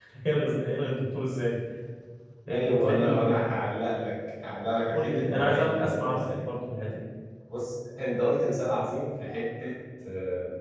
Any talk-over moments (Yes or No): Yes